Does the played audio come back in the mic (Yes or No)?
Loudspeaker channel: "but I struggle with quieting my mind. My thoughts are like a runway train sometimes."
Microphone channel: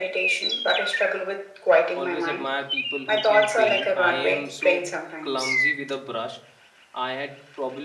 Yes